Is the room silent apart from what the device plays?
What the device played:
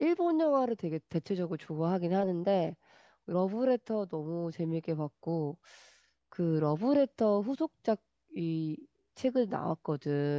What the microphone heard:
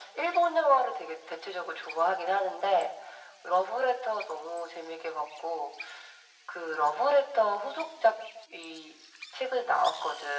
Yes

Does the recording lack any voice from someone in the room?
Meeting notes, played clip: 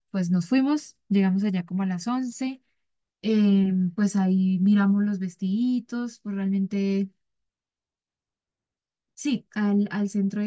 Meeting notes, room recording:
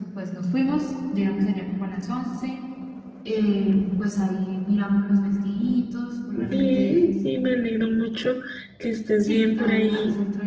No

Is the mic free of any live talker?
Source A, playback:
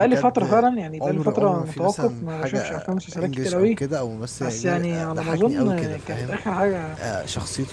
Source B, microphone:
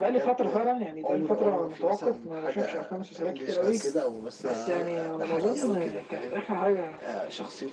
No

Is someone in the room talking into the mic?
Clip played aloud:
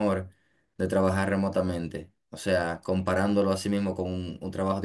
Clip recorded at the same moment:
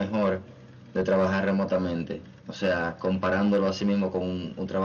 No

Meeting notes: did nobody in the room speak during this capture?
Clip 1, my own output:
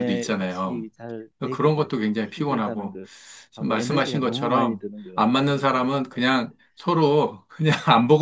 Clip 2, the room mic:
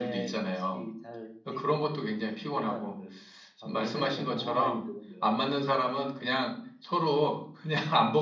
Yes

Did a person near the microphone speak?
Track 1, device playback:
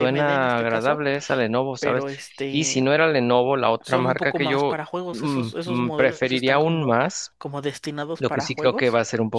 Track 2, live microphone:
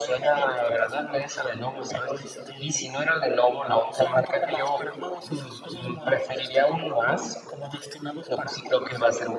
No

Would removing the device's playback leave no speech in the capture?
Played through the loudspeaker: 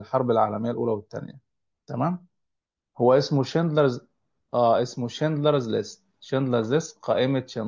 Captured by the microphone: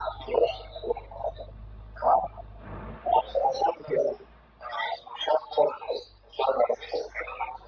Yes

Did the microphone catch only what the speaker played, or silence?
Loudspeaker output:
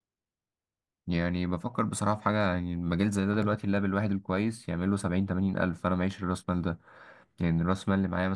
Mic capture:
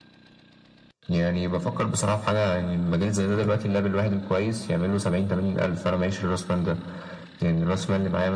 Yes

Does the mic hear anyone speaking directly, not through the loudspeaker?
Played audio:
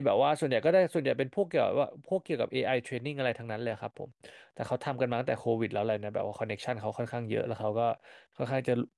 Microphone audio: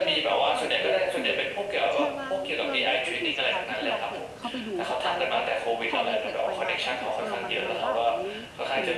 Yes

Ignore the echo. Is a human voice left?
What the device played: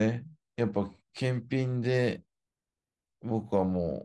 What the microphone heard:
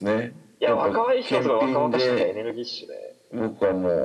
Yes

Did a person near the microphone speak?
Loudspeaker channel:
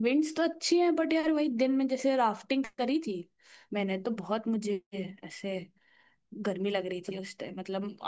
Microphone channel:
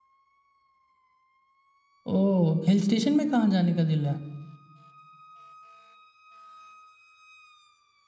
Yes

